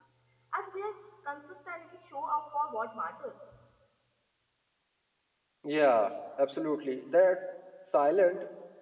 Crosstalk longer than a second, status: none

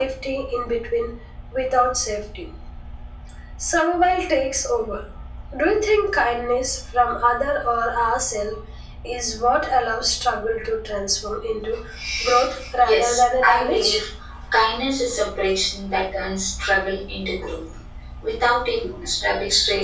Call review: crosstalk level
present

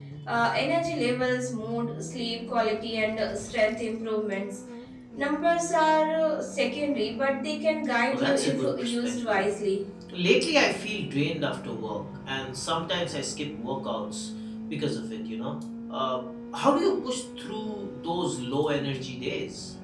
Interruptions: present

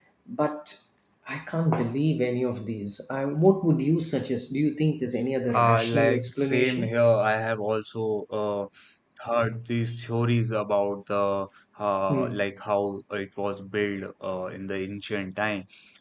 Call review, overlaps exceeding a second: present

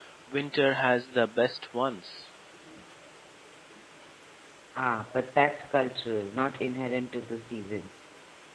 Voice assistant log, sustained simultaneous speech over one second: none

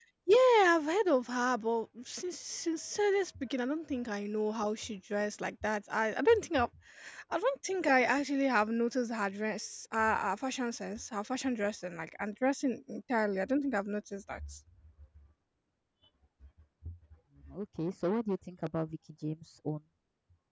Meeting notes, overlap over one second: none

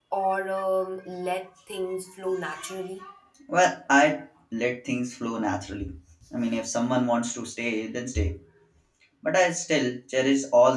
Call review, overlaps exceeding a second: none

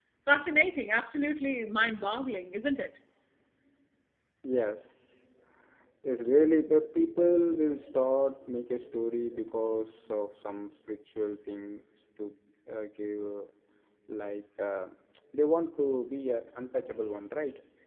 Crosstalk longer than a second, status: none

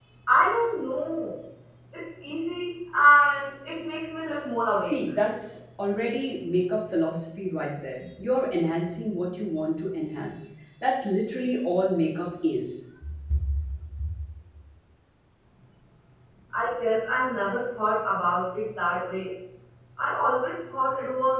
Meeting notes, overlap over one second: none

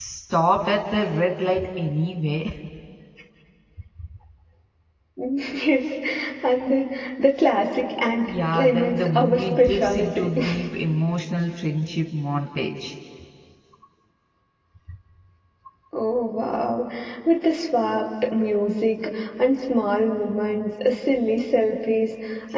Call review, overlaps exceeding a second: present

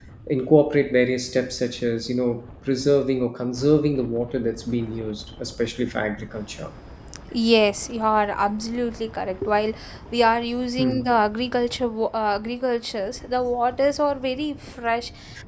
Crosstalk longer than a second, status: none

